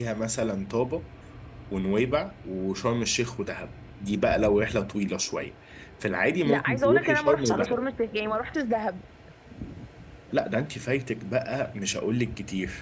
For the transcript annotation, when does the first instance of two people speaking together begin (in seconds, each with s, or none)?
6.4 s